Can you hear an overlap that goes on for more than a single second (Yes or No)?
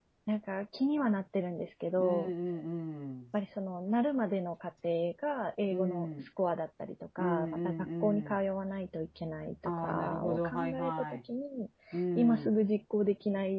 Yes